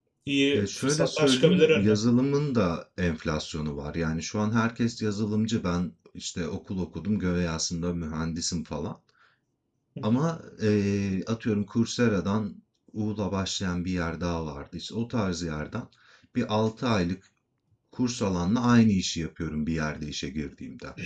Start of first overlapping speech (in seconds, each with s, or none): 0.5 s